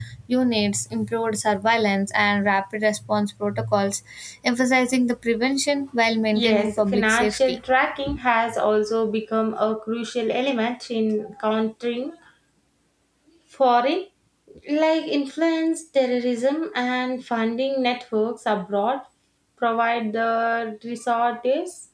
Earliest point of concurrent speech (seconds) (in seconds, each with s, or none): 6.3 s